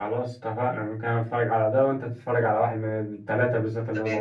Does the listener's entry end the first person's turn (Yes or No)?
Yes